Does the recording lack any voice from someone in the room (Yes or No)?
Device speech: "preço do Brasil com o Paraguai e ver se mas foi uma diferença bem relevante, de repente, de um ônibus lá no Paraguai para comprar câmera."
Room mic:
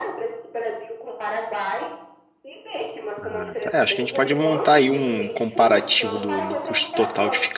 No